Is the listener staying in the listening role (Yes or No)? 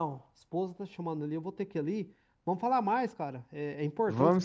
Yes